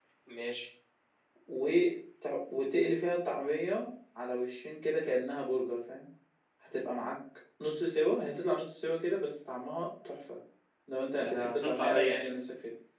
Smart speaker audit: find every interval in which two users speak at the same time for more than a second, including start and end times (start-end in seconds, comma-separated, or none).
11.1-12.3